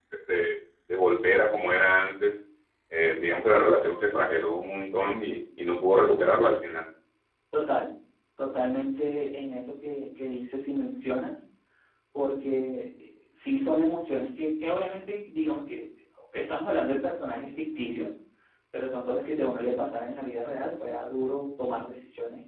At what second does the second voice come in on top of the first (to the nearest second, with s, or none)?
none